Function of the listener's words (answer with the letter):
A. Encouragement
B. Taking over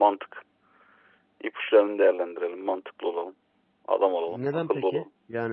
B